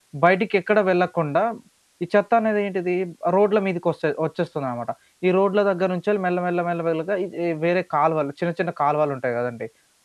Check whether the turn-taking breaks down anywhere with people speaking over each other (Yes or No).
No